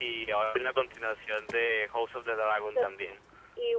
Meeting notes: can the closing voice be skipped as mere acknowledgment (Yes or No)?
No